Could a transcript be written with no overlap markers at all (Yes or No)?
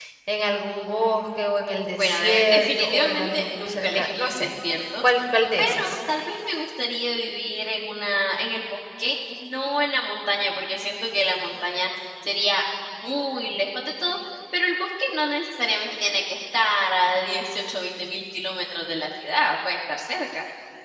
No